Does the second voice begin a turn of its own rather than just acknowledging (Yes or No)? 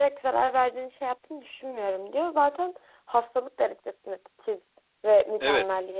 Yes